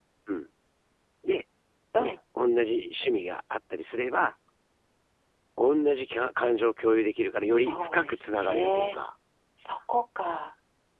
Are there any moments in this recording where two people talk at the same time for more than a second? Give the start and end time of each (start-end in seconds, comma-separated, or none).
7.5-9.0